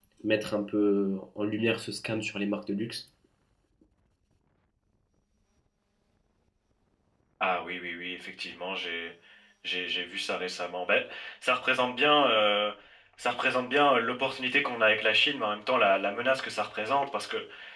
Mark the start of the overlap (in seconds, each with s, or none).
none